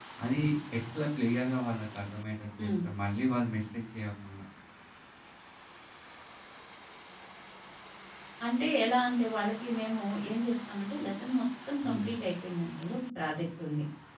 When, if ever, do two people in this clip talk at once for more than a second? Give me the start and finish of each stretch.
none

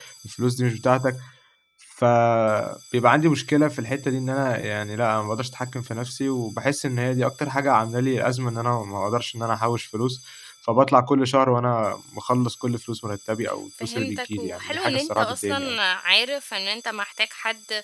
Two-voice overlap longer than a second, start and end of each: 13.8-15.8

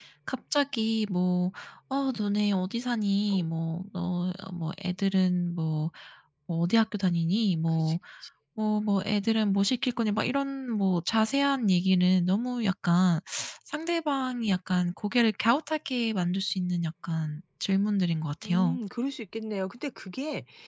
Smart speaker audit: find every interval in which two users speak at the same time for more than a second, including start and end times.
none

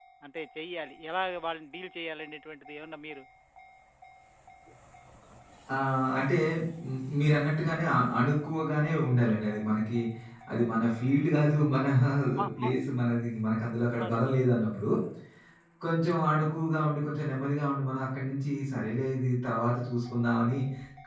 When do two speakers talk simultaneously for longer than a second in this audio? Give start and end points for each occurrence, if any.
none

